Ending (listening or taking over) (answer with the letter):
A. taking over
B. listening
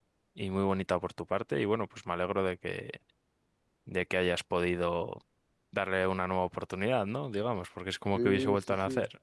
A